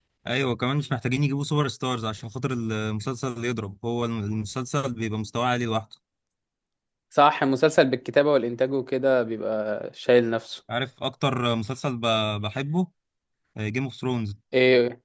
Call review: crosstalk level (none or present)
none